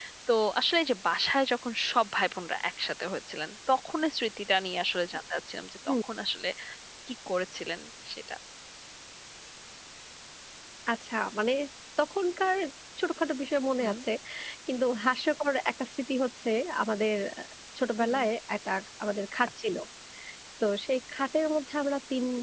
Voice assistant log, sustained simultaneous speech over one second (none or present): none